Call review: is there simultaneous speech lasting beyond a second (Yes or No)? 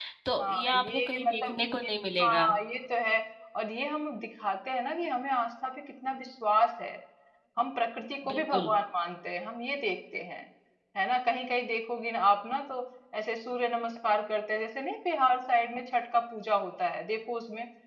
Yes